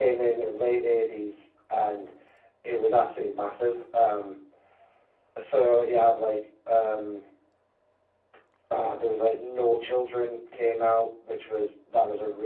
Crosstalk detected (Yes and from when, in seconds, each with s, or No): No